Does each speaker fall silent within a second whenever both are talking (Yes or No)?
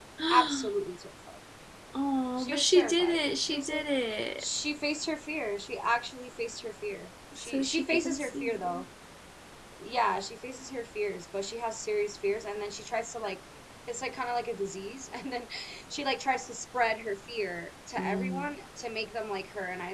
No